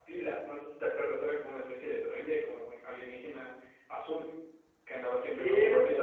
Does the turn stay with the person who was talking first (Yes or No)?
No